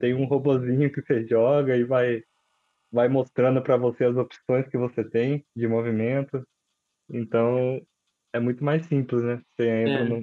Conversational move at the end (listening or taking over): listening